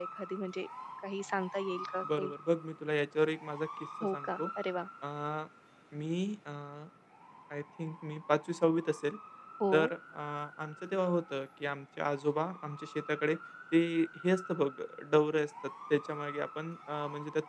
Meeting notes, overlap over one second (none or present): none